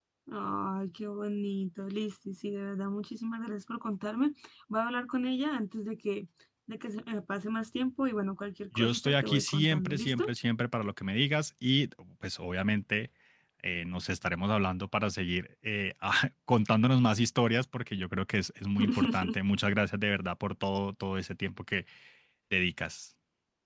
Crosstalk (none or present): present